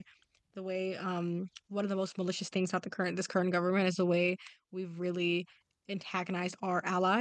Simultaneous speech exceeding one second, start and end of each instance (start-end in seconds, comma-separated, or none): none